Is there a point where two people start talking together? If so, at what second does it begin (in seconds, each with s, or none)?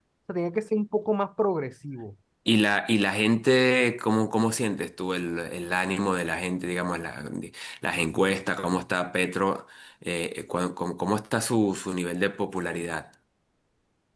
none